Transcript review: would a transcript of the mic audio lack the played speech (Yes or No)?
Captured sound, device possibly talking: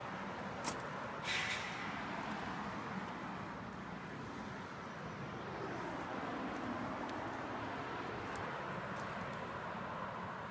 Yes